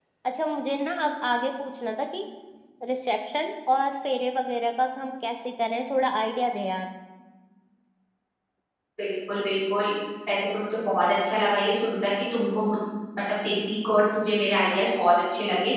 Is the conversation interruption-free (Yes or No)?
Yes